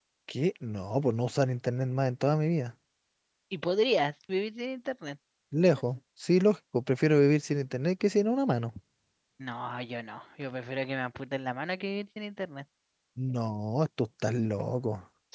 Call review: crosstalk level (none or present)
none